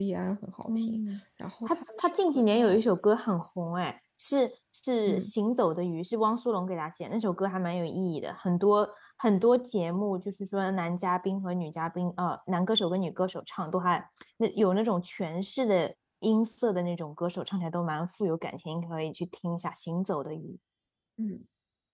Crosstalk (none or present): present